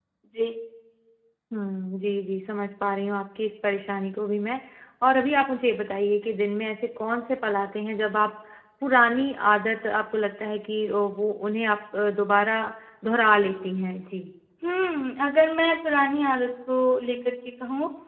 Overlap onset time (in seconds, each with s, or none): none